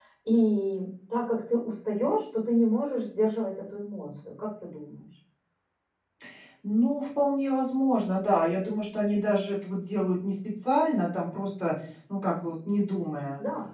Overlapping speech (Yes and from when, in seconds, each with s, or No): No